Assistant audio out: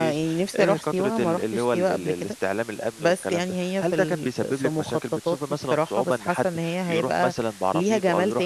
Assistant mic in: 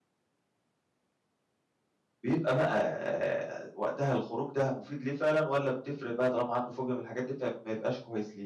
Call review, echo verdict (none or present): none